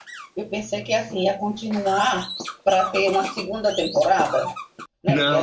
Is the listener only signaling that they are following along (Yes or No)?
Yes